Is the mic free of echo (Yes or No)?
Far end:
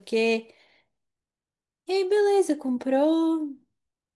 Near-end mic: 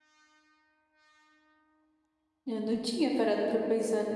Yes